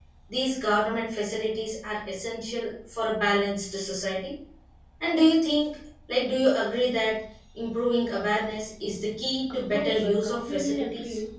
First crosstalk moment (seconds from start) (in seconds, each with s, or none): 9.7 s